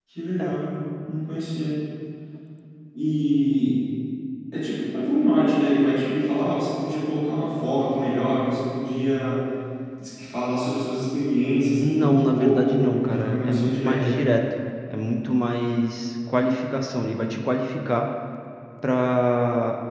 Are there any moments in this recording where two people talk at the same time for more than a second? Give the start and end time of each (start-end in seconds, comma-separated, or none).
11.8-14.3